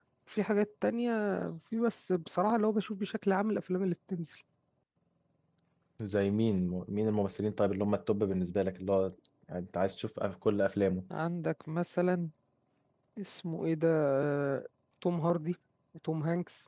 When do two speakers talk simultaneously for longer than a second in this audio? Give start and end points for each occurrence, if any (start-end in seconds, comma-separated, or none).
none